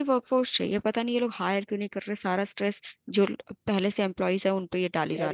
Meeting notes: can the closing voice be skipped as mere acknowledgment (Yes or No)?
No